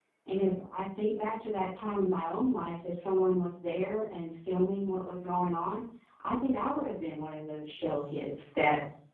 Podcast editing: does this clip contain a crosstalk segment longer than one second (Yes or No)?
No